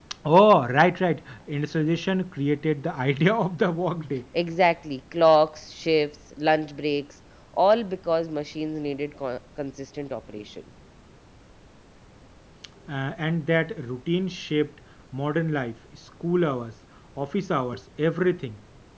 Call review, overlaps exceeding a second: none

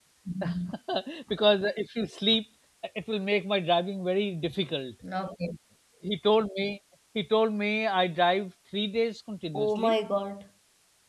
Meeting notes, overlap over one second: none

